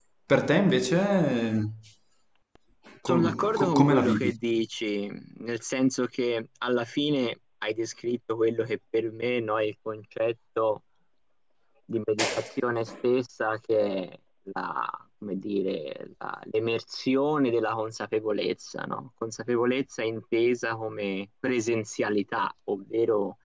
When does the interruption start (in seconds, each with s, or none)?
3.1 s